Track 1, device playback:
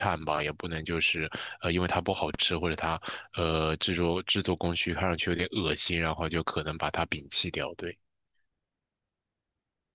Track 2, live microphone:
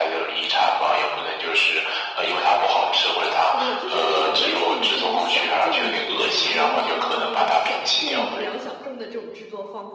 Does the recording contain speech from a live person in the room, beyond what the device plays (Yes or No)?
Yes